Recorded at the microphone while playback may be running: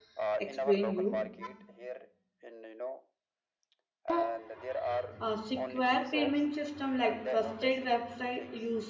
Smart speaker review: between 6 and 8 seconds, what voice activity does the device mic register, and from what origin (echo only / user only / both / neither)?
both